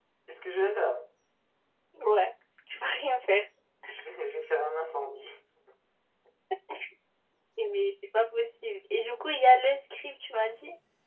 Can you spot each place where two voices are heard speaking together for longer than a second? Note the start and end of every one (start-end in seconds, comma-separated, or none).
none